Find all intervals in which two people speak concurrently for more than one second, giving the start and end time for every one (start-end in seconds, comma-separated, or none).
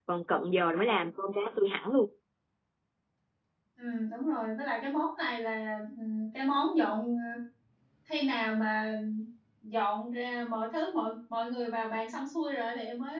none